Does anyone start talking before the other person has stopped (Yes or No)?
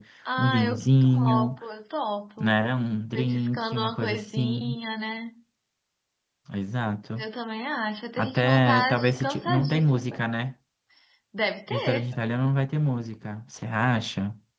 Yes